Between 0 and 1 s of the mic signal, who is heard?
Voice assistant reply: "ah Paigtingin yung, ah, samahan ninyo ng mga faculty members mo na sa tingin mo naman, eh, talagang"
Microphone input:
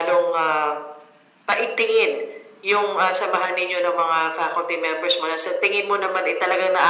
echo only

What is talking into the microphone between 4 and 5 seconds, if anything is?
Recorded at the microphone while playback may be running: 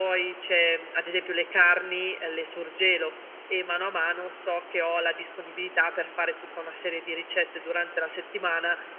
echo only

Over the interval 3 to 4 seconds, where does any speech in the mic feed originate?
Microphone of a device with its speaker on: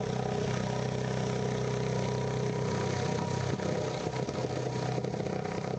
neither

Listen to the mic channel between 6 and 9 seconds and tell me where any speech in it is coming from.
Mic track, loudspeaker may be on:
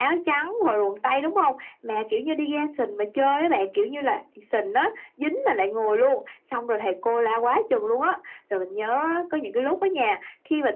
echo only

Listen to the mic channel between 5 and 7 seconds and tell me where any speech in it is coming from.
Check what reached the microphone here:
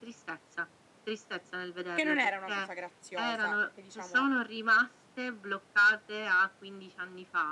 echo only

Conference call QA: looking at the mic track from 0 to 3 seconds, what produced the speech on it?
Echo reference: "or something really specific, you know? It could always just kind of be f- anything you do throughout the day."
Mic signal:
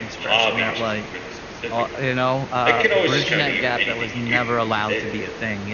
both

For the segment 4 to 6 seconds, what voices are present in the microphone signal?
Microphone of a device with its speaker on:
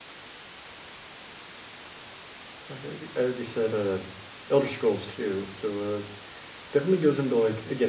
user only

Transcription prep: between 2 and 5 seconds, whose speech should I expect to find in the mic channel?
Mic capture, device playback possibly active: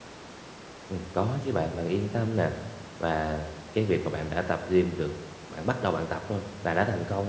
user only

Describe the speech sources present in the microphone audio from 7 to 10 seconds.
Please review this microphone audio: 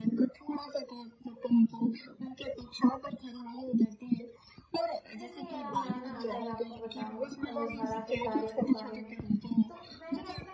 both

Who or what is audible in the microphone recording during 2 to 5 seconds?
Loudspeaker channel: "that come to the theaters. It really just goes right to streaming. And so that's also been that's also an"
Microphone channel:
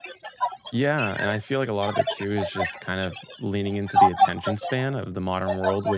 both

